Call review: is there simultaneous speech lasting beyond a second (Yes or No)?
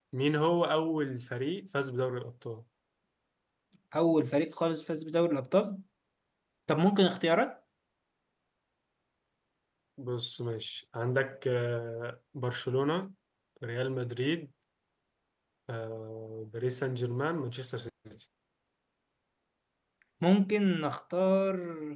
No